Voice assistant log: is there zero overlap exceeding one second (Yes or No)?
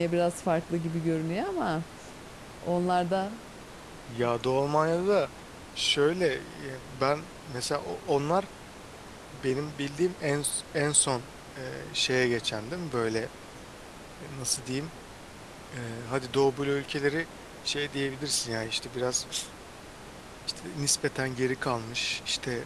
Yes